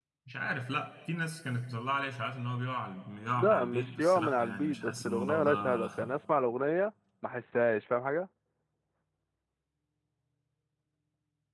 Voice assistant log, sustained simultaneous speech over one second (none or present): present